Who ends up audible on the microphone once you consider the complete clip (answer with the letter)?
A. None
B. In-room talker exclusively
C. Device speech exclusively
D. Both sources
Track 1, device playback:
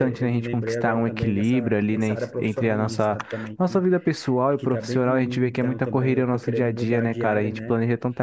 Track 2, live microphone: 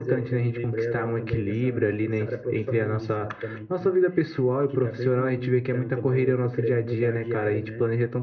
C